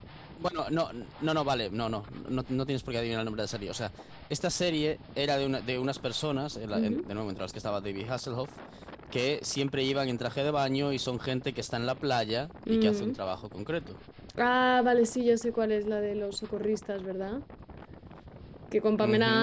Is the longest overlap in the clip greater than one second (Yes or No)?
No